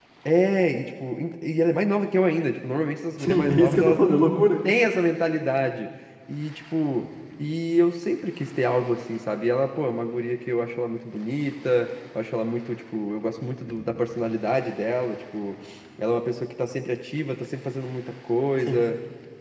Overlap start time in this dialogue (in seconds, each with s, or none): 3.2 s